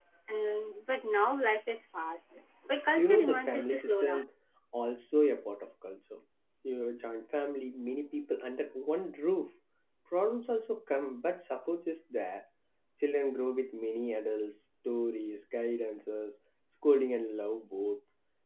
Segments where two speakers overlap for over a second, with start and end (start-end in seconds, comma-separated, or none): 3.0-4.2